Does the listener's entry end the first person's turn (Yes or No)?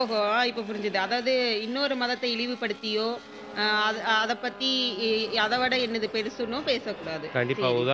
Yes